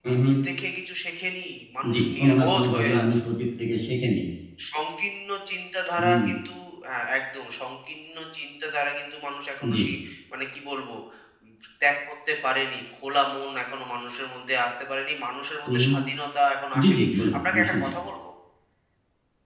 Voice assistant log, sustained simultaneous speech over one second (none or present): present